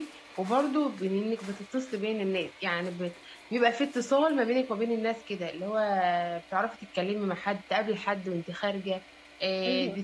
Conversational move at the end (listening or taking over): listening